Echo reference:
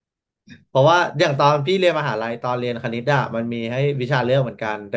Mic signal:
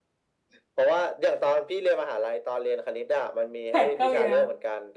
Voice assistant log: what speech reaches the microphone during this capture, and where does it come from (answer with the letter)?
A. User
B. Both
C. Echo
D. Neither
B